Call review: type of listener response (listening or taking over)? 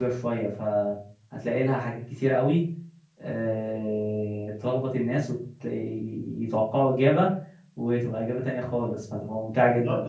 taking over